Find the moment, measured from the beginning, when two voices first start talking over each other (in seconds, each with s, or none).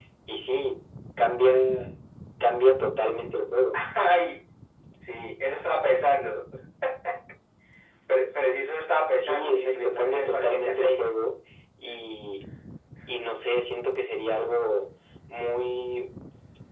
9.2 s